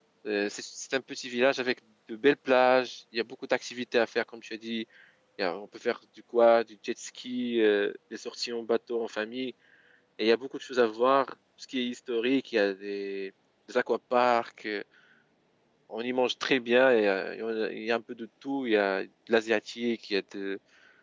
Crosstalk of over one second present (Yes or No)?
No